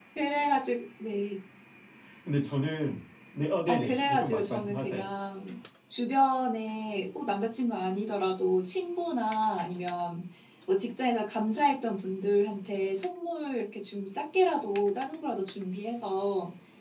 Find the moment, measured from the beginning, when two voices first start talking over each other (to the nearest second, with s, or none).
4 s